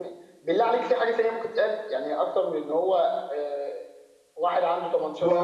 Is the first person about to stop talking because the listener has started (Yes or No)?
Yes